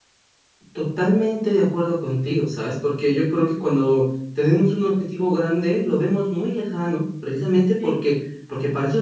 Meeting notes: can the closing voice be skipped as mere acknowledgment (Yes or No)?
Yes